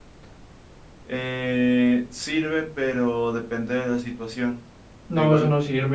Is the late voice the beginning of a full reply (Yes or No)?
Yes